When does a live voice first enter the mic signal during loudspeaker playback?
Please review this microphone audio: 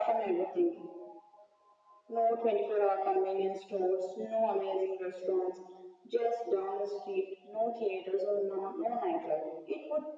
none

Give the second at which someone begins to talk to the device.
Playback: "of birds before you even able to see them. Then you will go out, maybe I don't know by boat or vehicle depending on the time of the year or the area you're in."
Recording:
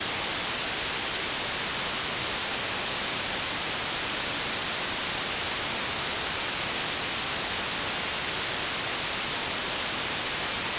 none

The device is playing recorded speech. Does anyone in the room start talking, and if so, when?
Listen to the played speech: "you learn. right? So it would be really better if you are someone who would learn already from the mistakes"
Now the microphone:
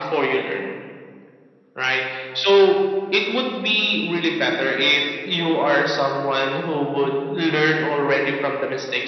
none

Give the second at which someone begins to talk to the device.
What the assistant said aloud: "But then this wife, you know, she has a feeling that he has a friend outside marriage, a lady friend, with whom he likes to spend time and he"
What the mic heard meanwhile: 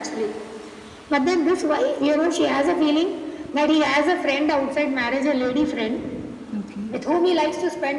6.5 s

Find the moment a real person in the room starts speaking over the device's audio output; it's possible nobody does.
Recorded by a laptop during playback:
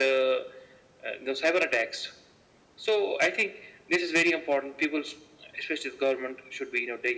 none

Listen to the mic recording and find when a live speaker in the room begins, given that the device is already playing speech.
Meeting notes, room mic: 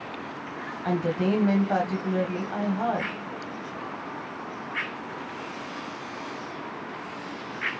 0.8 s

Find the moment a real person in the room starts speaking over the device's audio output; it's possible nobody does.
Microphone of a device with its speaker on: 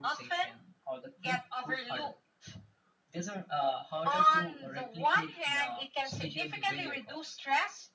none

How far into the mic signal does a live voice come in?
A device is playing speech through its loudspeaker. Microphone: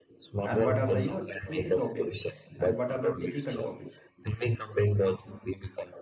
0.4 s

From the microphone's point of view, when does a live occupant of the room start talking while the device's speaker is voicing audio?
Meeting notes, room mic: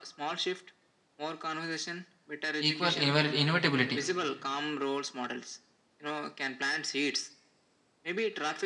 2.6 s

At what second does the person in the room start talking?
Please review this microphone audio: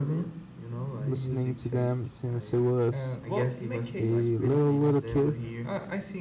1.0 s

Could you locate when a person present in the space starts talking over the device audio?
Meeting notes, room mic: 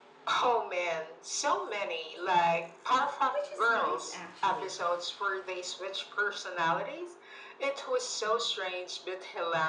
3.3 s

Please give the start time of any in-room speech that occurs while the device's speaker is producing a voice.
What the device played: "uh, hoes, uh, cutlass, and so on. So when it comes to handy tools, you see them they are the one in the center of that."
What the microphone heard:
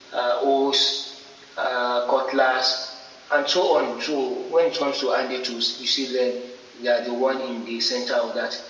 none

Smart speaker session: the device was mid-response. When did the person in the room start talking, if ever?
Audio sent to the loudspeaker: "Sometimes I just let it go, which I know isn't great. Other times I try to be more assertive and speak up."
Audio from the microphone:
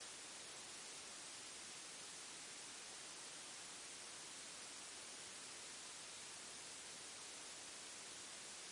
none

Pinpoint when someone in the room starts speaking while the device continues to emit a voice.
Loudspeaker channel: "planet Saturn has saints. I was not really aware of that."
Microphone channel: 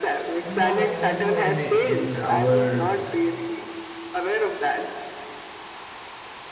0.4 s

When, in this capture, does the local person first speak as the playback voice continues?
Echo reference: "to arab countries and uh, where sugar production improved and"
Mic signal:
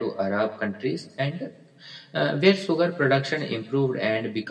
none

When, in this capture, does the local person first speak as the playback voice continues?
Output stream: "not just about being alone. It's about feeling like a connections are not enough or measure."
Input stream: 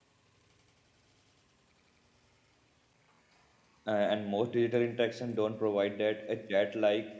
3.8 s

